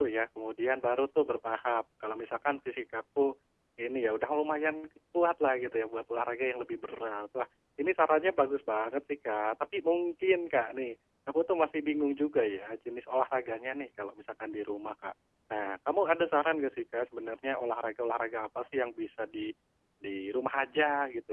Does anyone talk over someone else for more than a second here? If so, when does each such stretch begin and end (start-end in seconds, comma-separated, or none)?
none